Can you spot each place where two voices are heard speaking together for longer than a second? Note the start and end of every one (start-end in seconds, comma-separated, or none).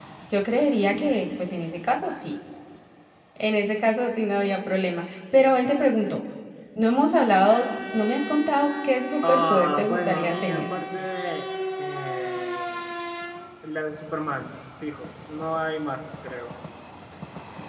9.2-10.7